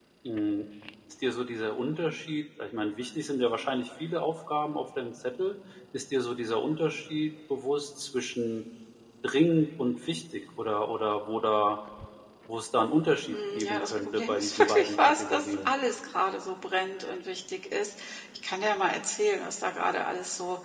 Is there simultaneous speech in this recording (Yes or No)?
Yes